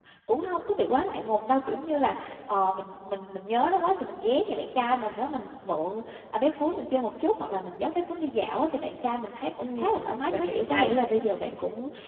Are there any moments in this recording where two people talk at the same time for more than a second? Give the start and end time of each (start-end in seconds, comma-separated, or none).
9.6-10.9